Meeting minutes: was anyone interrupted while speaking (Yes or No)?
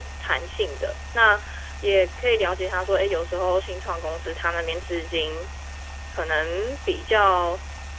No